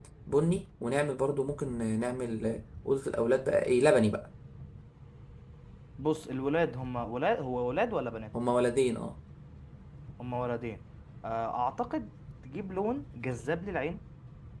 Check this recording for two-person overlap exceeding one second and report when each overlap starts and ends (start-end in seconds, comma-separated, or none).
none